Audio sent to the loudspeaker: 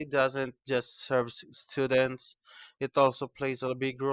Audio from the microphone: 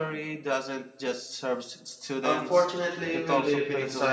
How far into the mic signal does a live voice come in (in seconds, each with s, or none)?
2.2 s